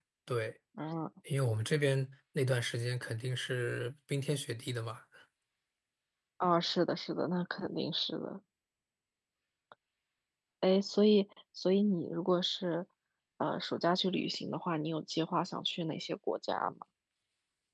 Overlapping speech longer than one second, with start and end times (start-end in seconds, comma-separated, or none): none